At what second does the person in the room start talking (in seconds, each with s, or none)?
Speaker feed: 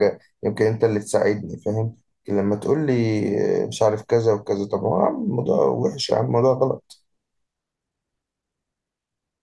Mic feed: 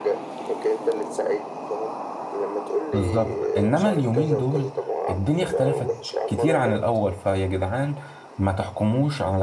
2.9 s